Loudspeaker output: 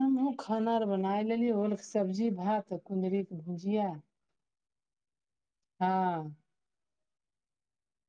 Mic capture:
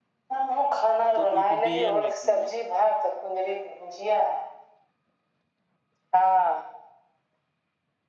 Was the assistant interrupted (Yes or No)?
Yes